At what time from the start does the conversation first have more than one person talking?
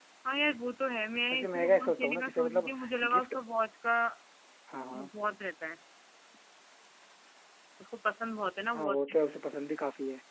1.3 s

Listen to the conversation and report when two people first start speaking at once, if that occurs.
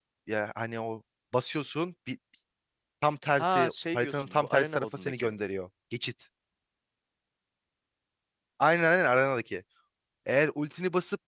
3.4 s

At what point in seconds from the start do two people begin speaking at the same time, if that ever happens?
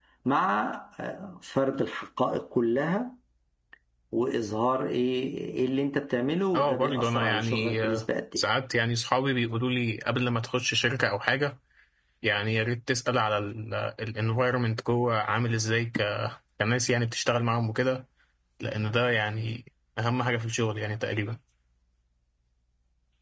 6.5 s

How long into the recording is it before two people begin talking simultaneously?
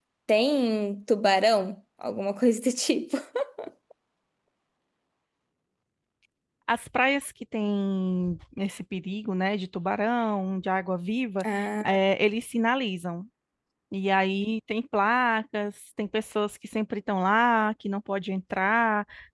none

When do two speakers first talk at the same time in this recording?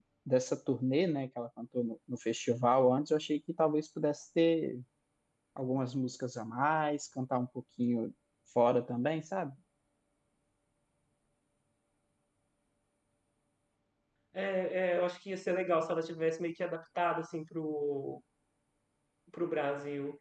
none

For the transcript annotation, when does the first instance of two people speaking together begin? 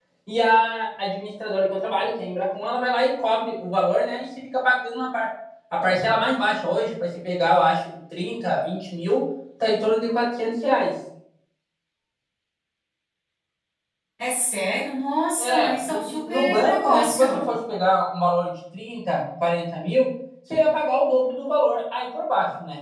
15.4 s

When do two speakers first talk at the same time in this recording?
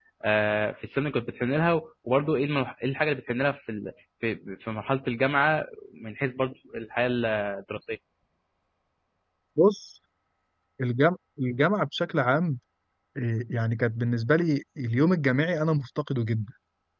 none

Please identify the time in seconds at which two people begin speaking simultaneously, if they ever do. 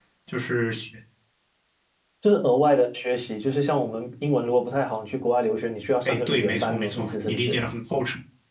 6.0 s

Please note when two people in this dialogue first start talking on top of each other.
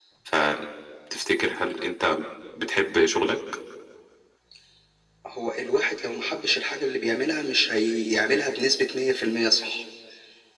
none

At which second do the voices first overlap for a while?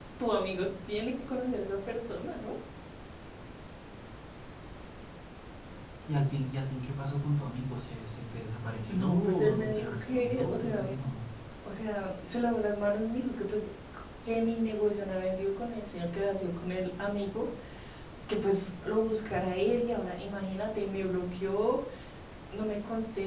8.9 s

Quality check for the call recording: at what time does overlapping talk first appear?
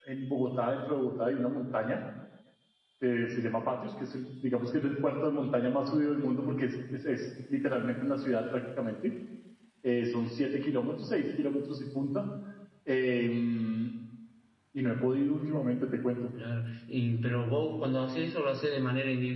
none

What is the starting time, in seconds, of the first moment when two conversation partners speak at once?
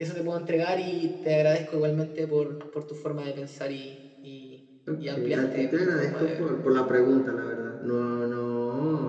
4.9 s

